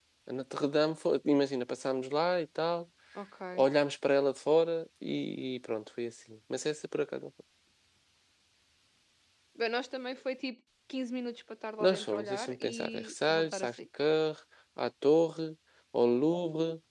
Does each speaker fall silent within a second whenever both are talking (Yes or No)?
No